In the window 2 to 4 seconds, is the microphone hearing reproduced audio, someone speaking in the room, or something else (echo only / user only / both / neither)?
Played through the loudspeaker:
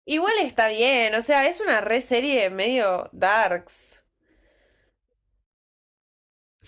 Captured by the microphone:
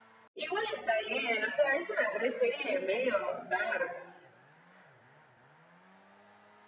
echo only